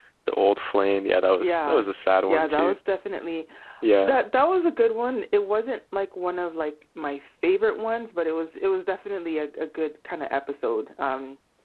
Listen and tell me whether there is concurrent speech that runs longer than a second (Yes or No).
No